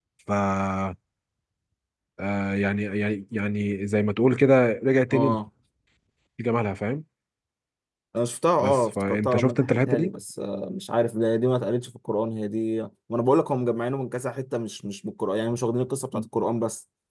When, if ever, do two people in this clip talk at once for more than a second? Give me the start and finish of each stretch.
8.6-10.1

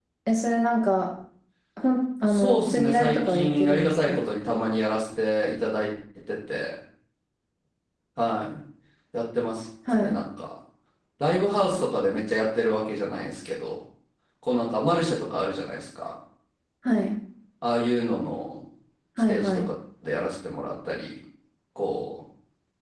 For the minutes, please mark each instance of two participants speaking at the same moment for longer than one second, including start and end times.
2.3-4.2

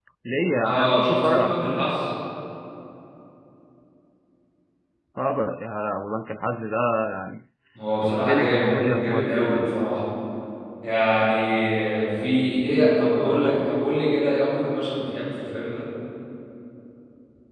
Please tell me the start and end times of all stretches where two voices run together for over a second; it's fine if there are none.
0.6-1.9, 8.0-9.4

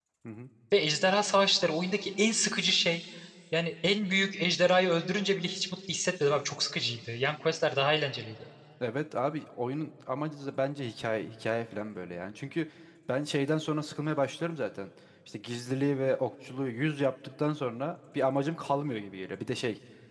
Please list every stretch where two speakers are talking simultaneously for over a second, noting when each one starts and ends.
none

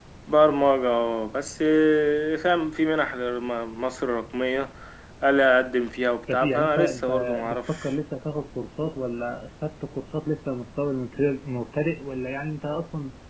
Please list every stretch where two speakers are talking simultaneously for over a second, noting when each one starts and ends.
6.3-7.9

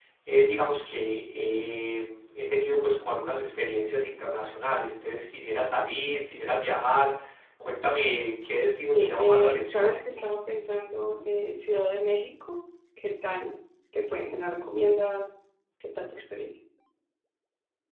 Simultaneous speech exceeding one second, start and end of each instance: 8.8-10.0

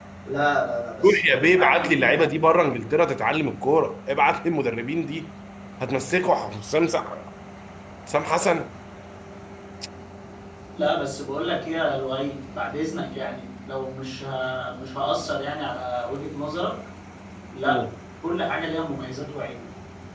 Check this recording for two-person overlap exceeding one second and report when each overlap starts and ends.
1.0-2.3

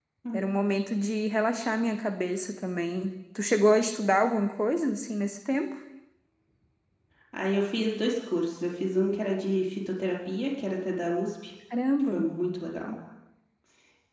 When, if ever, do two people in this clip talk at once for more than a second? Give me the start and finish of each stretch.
none

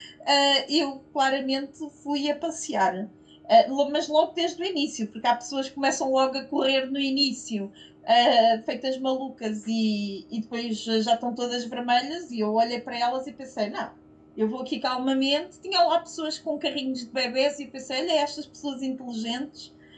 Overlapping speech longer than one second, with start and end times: none

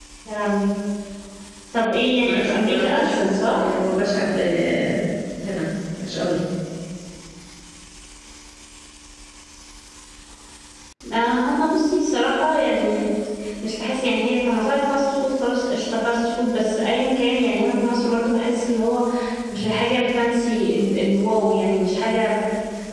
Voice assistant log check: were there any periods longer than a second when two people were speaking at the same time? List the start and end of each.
2.2-3.7

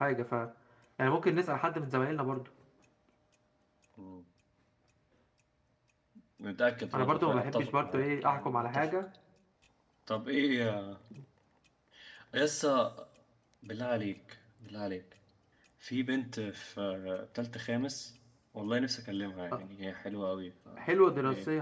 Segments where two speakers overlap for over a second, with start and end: 6.9-8.9

